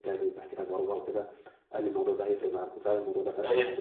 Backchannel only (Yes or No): No